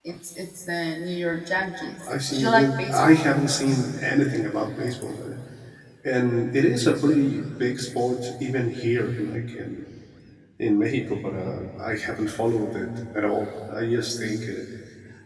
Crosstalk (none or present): present